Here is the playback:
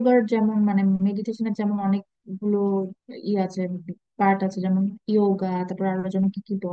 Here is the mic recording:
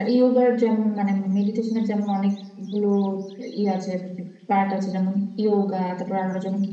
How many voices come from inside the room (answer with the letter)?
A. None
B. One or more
A